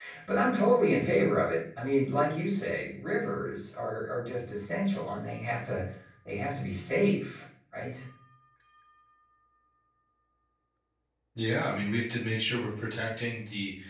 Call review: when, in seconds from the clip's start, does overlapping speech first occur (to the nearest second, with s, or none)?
none